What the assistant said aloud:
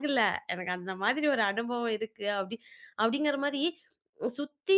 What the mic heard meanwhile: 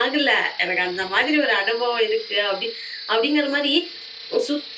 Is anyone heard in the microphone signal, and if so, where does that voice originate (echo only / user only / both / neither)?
echo only